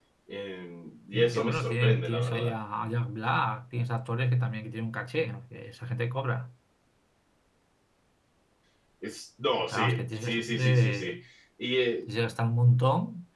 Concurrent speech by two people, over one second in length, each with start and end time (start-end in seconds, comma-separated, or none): 1.1-2.6, 9.7-11.2